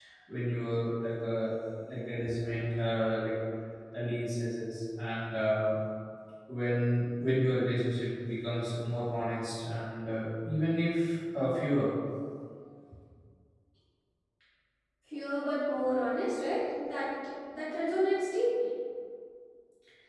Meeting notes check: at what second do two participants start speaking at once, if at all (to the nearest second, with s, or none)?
none